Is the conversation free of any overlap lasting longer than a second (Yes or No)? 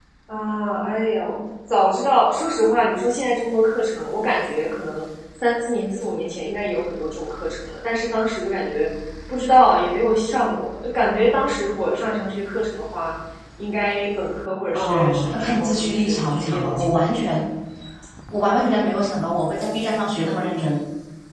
No